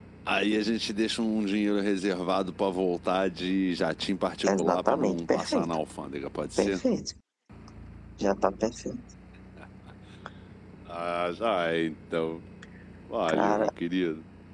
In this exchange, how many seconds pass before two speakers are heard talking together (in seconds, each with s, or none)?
4.5 s